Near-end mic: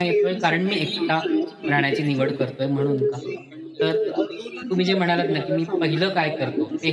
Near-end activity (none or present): present